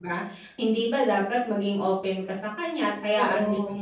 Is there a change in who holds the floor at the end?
No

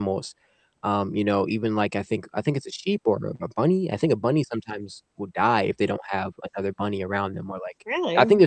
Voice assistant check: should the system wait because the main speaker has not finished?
Yes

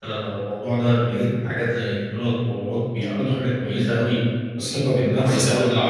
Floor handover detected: No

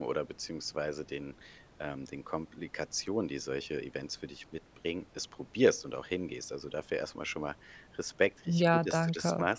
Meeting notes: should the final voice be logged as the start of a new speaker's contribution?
No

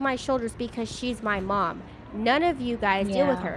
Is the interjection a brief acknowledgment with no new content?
Yes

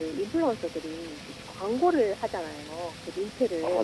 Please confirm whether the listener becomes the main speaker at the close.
No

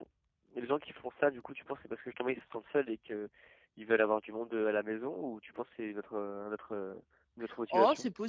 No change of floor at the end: No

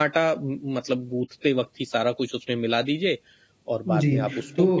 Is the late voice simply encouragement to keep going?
No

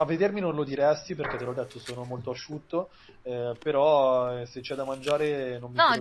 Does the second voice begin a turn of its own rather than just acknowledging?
Yes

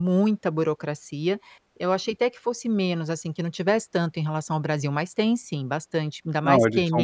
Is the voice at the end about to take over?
Yes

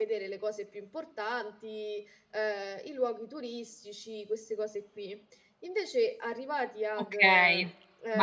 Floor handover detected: Yes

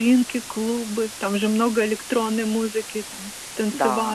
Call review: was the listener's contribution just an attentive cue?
No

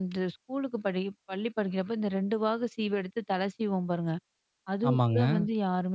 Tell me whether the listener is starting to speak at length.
No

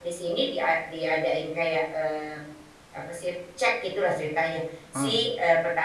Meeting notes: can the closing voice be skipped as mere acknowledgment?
Yes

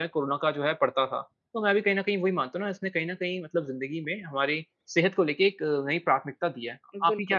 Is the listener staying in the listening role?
No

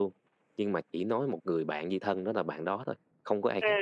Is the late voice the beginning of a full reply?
Yes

